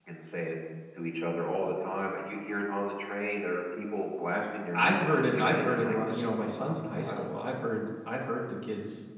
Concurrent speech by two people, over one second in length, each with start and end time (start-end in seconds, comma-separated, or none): 4.8-7.3